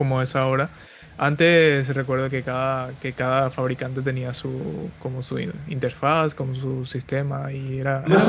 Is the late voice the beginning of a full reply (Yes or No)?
Yes